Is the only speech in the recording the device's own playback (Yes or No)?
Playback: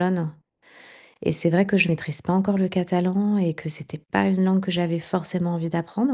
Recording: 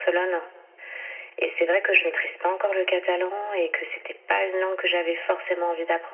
Yes